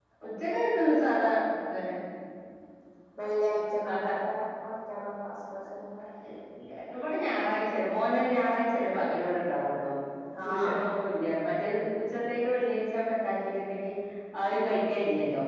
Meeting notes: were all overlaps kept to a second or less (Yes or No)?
Yes